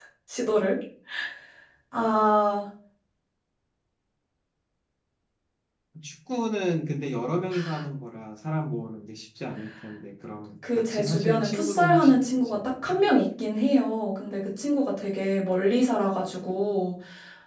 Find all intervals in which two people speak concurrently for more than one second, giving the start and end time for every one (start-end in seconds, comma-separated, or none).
10.8-13.0